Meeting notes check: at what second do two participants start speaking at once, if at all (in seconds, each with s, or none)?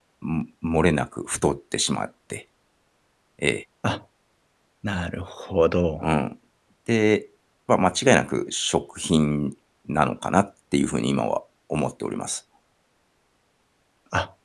none